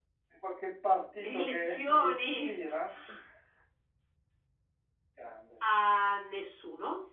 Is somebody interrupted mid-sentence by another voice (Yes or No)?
Yes